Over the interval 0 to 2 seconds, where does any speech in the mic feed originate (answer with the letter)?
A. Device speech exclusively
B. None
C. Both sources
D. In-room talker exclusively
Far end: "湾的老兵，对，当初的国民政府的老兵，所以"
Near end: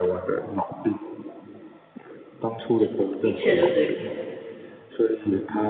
A